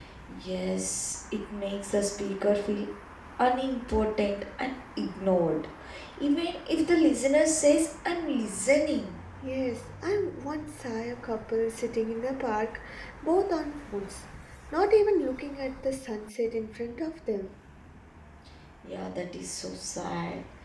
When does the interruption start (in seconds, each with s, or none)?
none